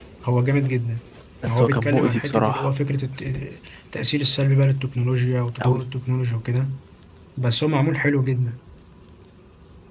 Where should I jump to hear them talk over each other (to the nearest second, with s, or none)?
1 s